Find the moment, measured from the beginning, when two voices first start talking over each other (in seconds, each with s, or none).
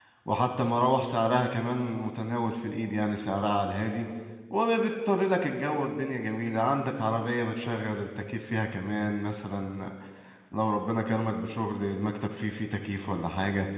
none